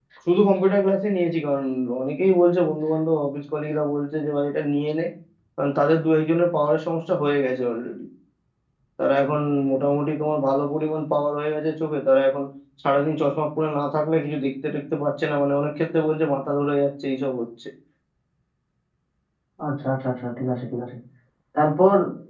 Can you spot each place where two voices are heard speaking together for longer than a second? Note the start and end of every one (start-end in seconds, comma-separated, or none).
none